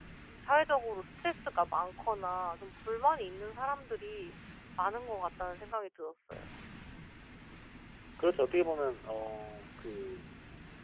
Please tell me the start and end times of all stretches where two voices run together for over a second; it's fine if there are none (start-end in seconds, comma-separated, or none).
none